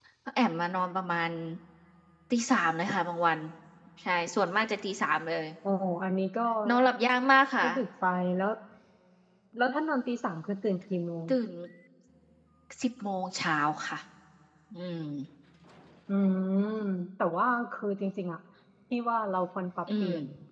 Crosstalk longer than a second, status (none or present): none